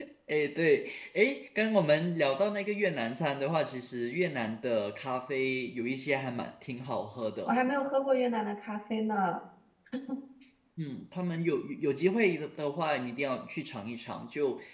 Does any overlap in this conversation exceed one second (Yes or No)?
No